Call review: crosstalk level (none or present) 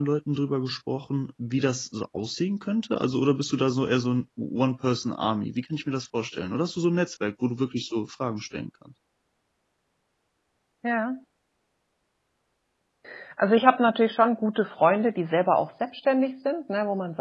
none